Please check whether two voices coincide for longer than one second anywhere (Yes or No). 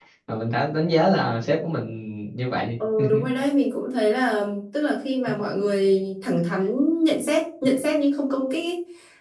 No